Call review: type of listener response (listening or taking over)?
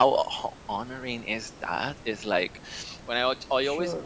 listening